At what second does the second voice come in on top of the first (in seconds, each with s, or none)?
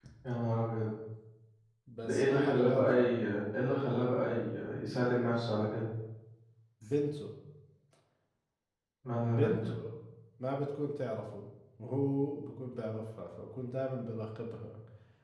2.0 s